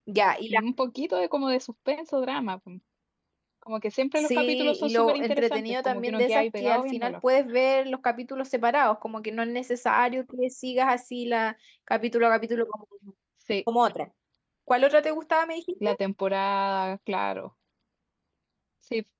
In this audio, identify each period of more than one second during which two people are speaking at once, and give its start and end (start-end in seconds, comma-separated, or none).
4.2-7.1